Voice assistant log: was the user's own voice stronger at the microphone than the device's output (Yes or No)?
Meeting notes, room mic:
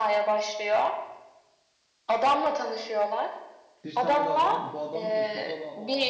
No